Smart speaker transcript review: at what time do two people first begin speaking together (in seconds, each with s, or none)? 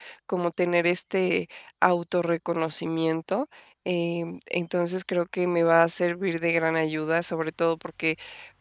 none